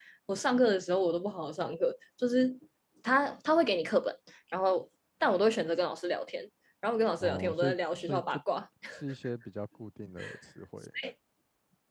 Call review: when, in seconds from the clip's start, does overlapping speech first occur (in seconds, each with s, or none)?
7.2 s